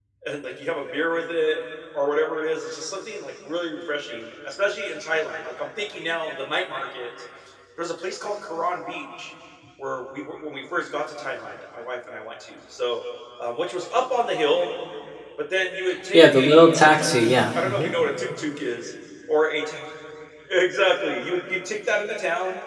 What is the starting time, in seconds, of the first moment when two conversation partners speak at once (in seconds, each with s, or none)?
16.1 s